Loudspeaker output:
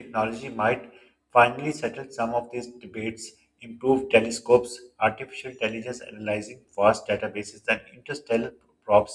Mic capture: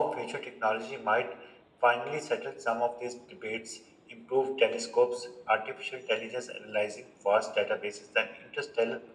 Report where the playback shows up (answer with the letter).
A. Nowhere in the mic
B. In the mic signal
B